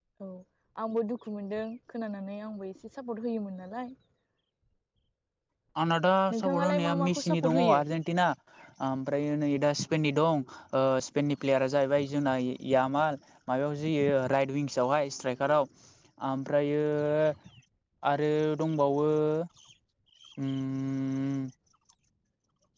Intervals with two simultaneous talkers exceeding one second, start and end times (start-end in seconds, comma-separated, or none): 6.3-7.8